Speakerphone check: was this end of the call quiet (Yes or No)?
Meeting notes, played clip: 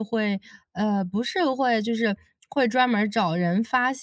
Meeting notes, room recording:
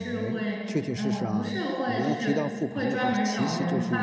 No